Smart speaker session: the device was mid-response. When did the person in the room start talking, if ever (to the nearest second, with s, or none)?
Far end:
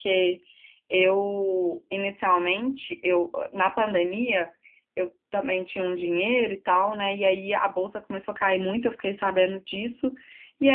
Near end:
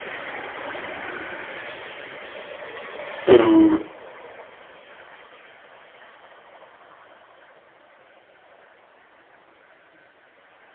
3 s